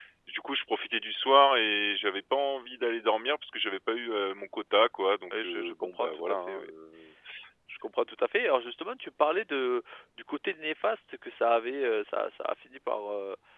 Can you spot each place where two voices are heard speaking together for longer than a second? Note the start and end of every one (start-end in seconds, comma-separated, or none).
5.3-6.7